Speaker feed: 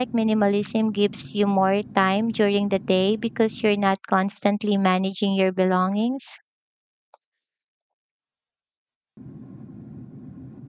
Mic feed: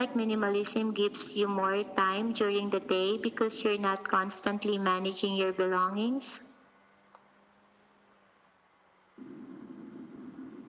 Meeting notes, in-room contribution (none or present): none